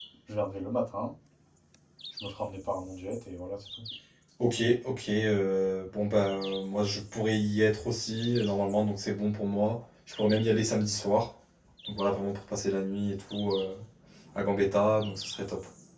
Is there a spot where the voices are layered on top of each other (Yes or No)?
No